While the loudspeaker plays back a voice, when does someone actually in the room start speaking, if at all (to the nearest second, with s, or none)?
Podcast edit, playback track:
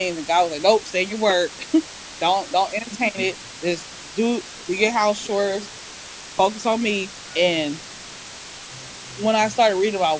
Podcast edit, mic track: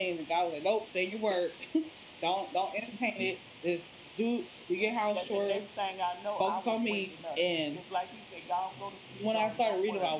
5 s